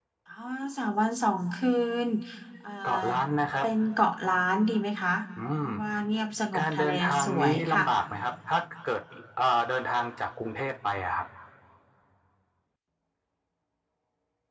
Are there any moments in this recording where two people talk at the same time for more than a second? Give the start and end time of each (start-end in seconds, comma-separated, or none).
6.6-7.8